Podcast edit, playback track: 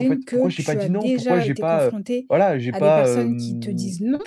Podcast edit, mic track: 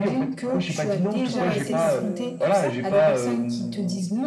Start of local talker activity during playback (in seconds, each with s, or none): 1.1 s